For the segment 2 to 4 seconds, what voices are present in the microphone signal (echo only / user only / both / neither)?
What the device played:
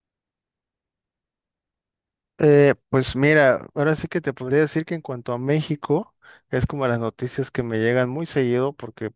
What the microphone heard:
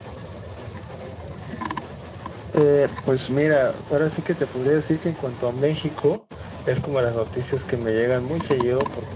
echo only